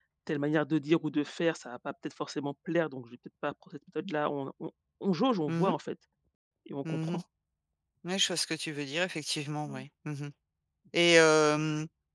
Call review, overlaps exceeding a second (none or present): none